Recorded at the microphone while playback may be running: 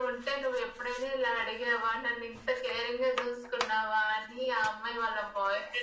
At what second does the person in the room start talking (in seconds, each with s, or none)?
none